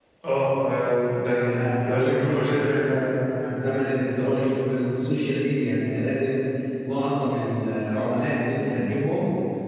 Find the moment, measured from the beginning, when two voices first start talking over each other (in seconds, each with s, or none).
1.3 s